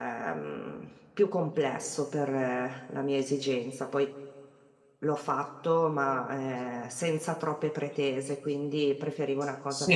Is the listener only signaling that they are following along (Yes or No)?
No